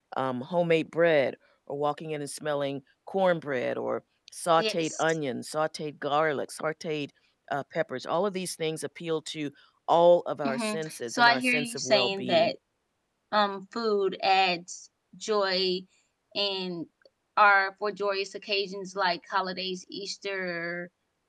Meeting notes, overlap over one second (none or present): present